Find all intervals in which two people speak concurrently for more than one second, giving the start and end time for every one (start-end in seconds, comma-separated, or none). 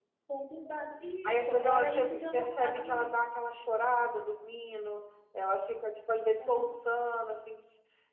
1.2-3.2